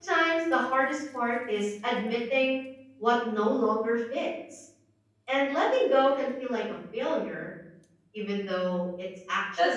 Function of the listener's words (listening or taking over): taking over